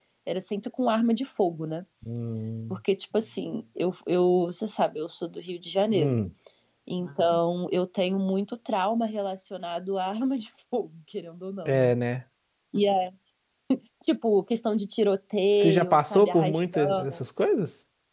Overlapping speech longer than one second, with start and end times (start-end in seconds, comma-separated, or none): 15.6-17.2